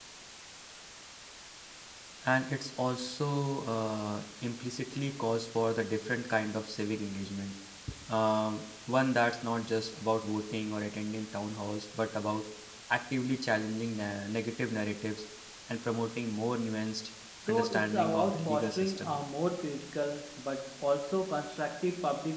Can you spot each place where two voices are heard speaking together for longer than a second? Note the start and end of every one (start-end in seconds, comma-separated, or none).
17.5-19.2